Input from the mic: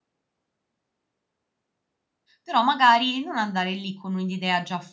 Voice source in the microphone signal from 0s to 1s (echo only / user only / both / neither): neither